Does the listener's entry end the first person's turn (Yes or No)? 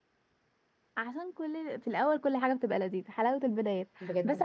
No